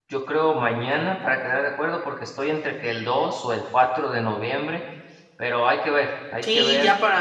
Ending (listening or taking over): taking over